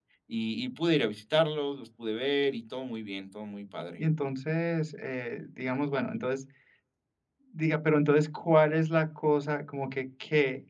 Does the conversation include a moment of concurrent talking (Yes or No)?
No